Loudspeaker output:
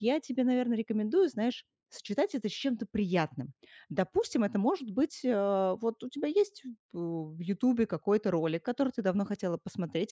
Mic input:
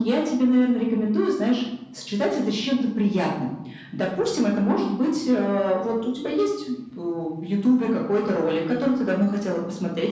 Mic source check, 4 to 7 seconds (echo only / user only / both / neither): echo only